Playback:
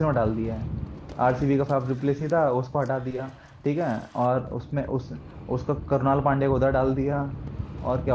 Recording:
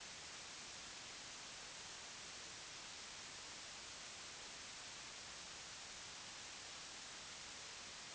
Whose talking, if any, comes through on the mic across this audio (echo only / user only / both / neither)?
neither